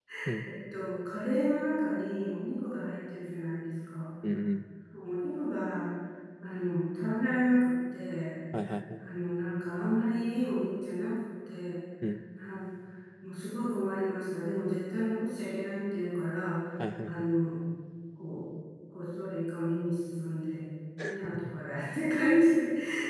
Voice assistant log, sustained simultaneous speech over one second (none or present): none